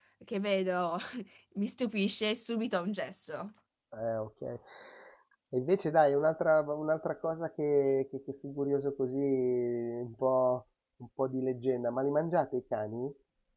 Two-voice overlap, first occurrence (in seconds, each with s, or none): none